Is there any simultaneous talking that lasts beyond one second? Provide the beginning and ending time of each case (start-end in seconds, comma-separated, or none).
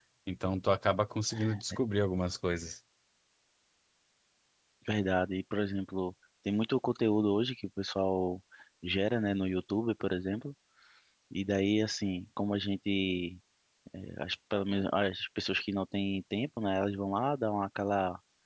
none